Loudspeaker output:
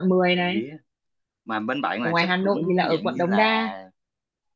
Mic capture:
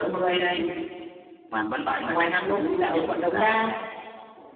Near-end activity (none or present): none